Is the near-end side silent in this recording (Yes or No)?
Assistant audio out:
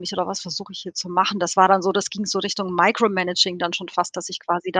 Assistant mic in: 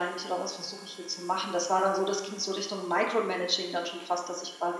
Yes